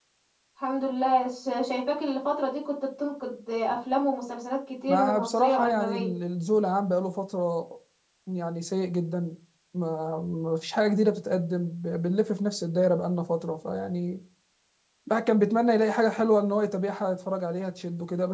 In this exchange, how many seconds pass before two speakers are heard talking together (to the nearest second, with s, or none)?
5 s